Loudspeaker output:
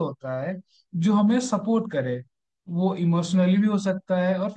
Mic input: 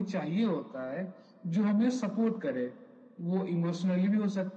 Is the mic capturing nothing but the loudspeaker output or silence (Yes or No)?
Yes